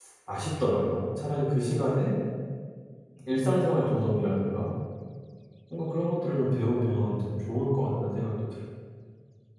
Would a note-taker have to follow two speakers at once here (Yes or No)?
No